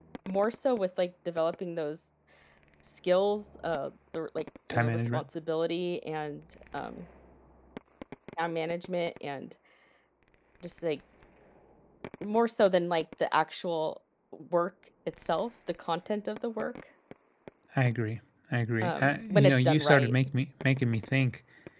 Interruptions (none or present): present